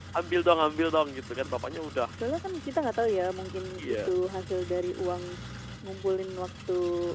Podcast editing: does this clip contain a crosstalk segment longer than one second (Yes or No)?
No